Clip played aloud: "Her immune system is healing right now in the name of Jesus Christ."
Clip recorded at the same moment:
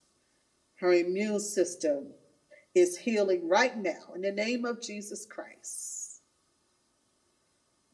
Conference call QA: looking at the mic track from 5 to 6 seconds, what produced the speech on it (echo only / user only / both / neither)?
echo only